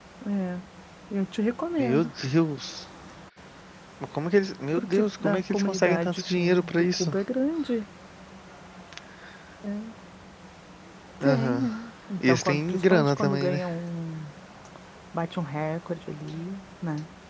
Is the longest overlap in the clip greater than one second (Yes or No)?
Yes